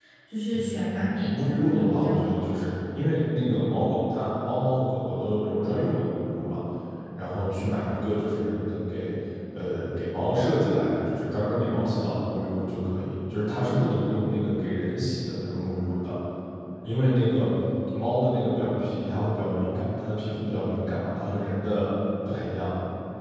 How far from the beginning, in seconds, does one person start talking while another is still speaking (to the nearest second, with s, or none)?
1 s